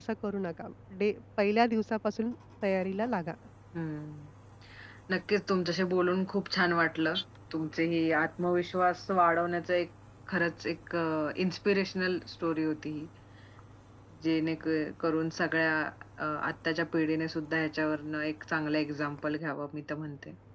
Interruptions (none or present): none